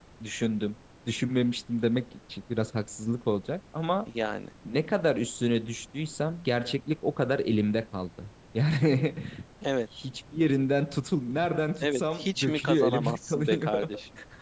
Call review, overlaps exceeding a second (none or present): present